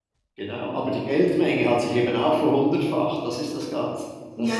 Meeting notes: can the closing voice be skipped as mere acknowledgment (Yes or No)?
No